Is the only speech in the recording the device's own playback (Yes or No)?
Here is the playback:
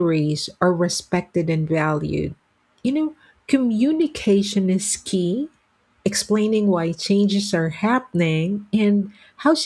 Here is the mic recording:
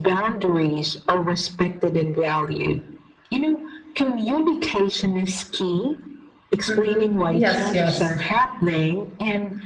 No